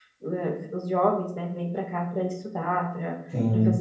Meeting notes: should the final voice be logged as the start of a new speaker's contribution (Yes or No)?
No